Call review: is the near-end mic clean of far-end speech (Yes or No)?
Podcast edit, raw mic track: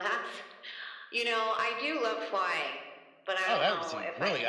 No